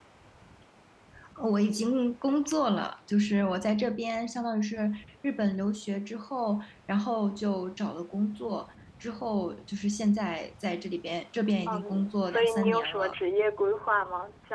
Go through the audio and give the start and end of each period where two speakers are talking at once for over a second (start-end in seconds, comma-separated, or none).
11.7-13.2